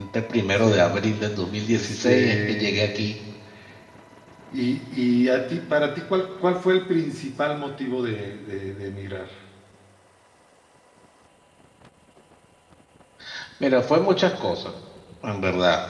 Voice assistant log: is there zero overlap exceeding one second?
No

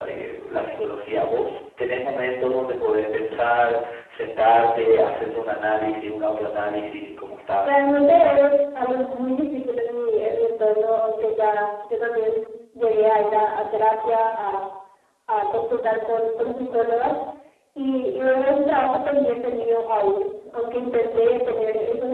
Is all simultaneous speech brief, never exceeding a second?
Yes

